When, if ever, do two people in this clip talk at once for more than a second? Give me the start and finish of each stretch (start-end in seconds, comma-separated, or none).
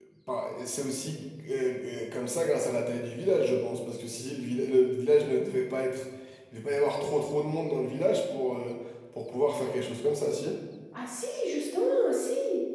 none